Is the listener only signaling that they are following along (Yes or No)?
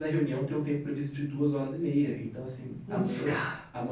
Yes